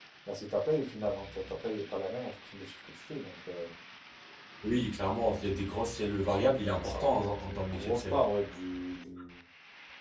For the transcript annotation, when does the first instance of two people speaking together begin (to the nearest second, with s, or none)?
7 s